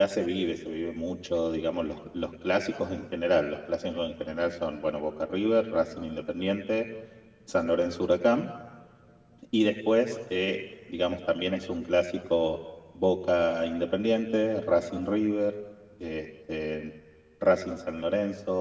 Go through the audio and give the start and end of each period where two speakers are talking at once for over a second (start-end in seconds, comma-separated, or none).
none